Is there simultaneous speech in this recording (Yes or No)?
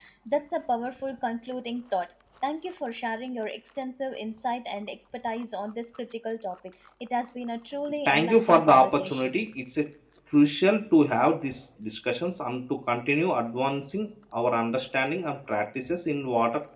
Yes